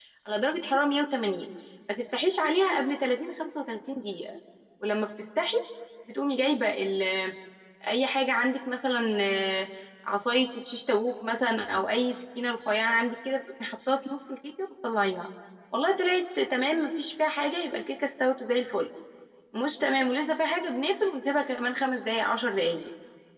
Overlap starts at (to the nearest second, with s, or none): none